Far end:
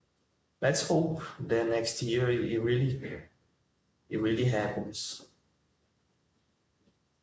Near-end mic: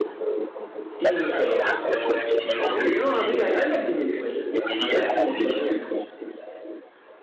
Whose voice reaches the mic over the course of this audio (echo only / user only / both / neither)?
both